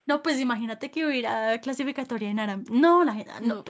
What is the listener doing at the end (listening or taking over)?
listening